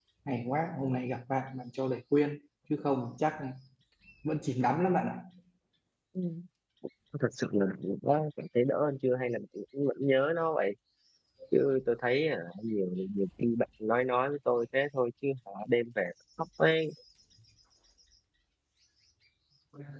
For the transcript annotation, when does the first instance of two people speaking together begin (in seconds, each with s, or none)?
none